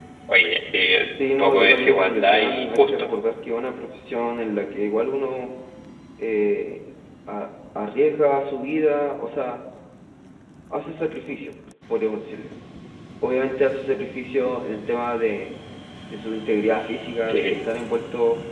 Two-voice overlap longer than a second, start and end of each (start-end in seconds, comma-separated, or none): 1.4-3.1